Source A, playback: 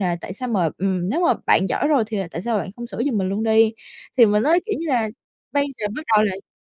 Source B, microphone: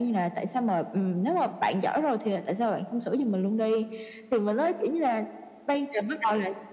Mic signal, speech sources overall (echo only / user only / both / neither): echo only